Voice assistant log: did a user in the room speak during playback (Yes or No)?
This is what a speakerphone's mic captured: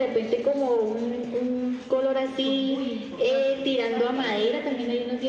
Yes